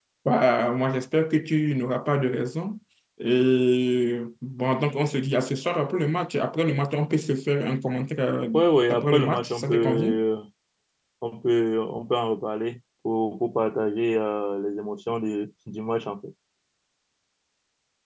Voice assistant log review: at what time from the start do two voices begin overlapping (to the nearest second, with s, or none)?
9 s